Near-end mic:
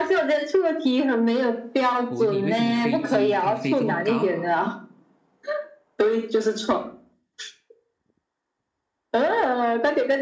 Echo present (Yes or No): Yes